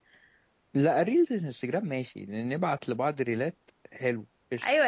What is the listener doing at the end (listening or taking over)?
taking over